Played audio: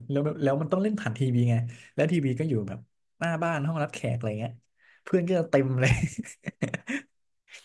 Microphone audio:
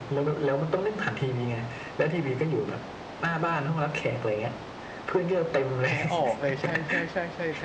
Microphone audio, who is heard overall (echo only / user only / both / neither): both